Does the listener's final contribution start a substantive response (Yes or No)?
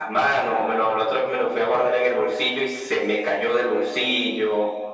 Yes